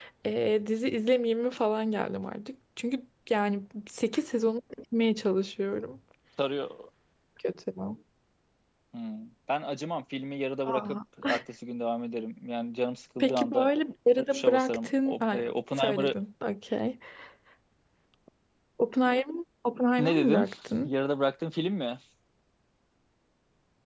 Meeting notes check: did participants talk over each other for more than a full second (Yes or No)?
Yes